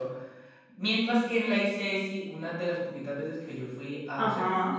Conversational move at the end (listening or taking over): listening